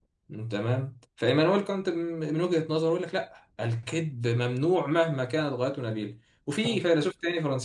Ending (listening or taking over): listening